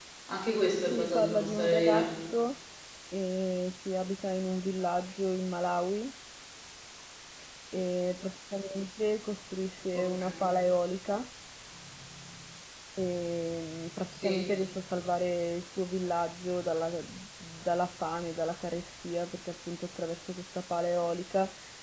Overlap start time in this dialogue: 0.8 s

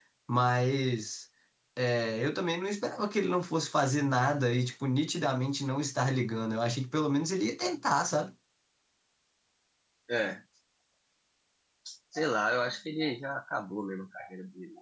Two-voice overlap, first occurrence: none

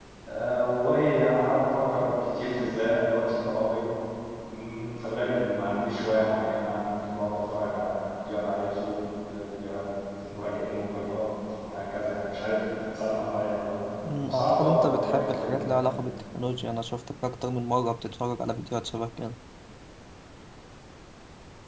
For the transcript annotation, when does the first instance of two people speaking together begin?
14.0 s

